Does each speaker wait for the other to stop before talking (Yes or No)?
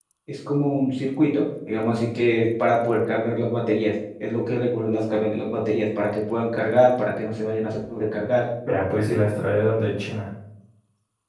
Yes